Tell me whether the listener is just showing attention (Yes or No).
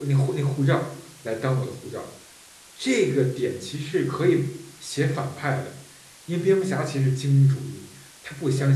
Yes